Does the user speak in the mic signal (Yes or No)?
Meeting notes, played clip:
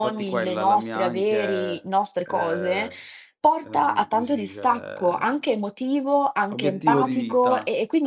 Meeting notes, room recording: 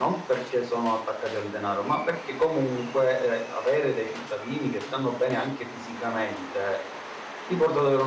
Yes